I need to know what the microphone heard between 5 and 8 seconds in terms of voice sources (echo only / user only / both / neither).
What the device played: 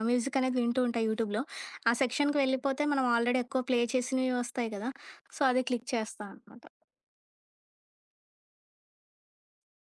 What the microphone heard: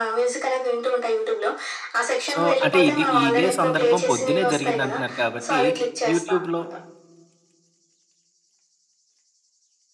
both